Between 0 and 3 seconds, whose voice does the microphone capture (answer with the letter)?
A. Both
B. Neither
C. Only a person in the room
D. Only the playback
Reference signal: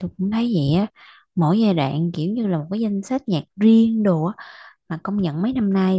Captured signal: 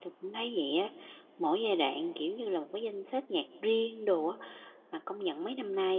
D